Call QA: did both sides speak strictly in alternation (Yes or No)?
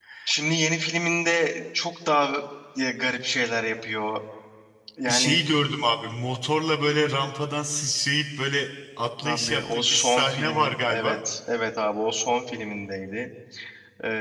No